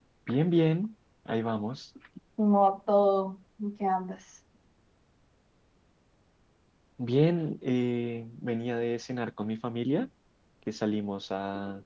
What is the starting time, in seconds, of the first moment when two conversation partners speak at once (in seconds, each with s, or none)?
none